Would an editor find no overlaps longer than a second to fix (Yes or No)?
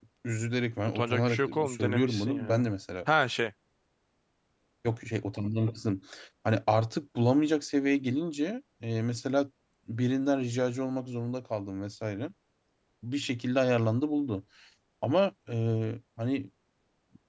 No